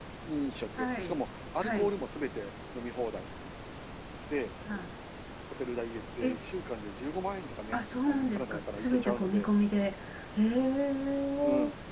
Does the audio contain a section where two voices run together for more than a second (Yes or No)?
Yes